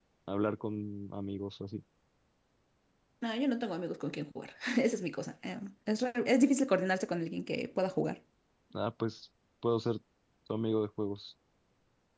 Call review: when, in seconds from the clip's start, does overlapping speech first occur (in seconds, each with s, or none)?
none